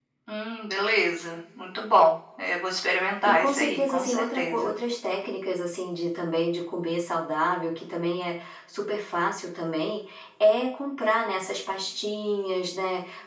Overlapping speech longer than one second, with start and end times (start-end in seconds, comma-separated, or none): 3.2-4.7